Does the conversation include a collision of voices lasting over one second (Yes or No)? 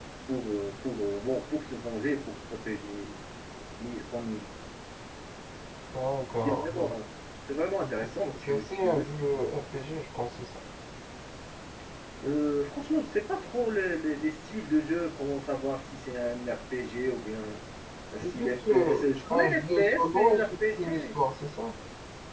Yes